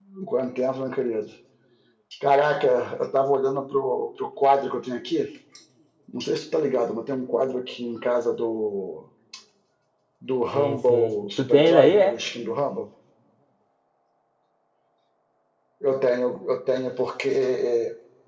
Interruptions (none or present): present